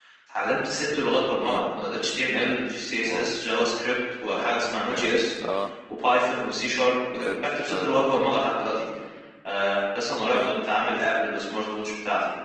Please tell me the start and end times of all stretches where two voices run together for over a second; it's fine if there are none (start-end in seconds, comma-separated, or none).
none